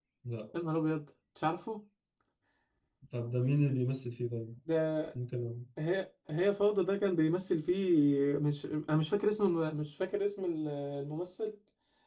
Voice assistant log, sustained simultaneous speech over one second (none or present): none